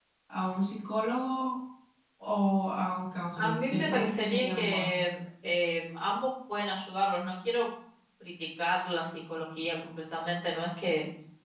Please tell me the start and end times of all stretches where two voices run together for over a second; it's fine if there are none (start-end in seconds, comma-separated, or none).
3.4-4.9